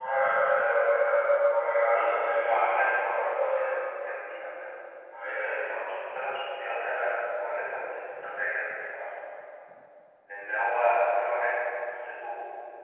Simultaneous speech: Yes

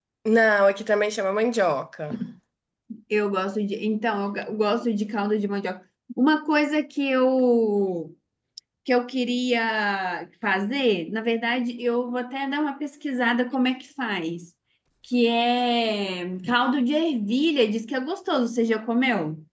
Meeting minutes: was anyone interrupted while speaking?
No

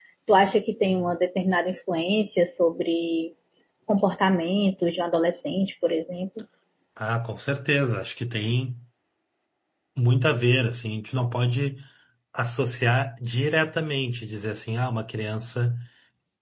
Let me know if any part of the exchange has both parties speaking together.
No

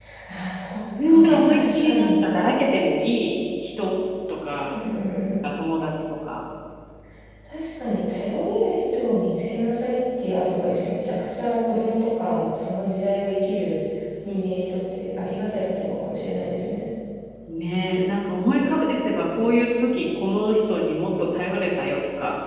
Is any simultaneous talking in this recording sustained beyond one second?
Yes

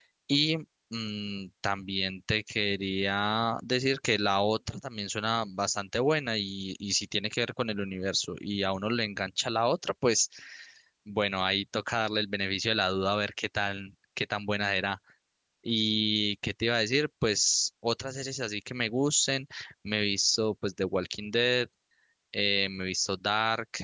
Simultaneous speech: No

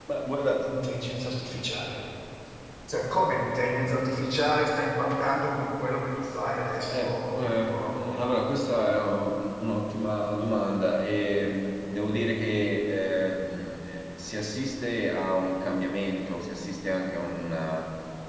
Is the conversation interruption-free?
No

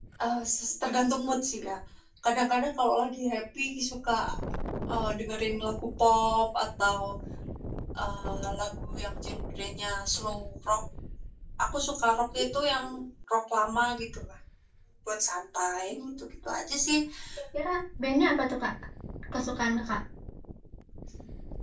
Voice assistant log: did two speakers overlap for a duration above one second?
No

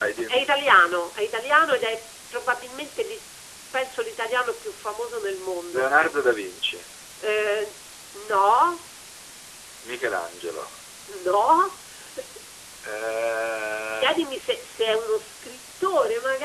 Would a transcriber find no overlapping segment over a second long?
Yes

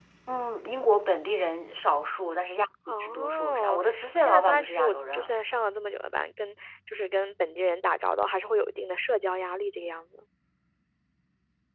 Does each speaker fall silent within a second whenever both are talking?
No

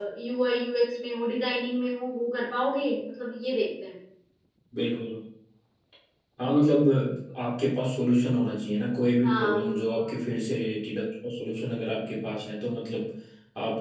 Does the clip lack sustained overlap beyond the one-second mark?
Yes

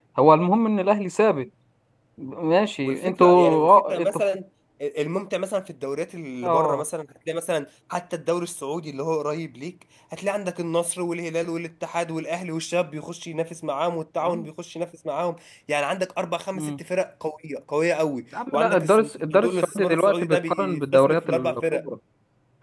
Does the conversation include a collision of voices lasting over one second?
Yes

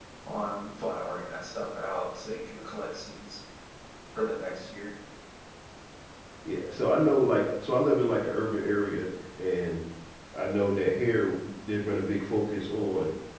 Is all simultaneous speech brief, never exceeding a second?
Yes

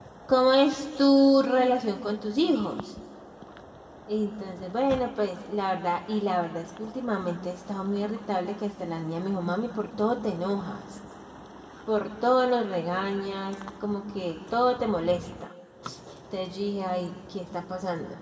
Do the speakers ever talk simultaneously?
No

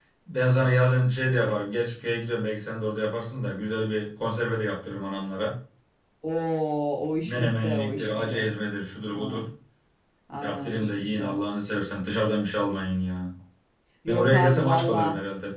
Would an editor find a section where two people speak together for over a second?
Yes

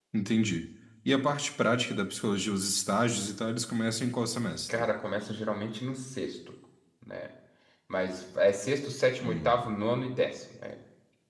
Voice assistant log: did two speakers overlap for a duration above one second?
No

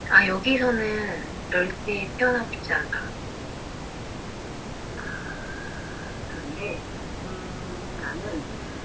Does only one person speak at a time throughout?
Yes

